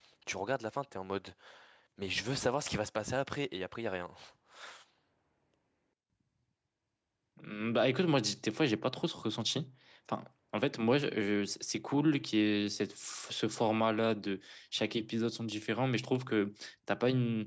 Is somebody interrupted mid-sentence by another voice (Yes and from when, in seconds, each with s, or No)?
No